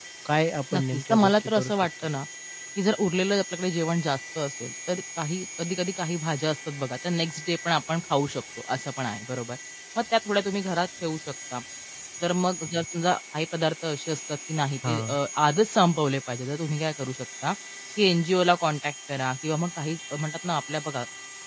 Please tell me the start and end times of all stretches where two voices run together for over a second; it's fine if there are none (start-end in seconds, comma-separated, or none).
0.7-2.1